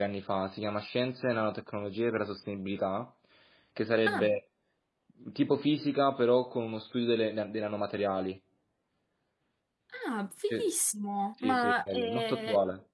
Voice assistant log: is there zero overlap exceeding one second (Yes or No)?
No